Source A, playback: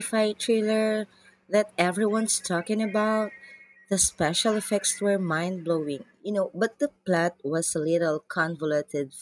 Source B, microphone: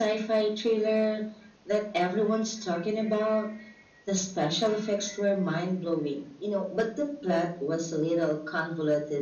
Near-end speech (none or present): none